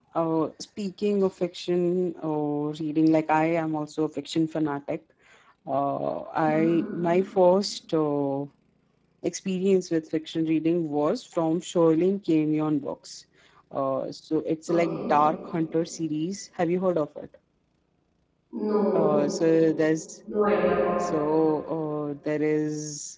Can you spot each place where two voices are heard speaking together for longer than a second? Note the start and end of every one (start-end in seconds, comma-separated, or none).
none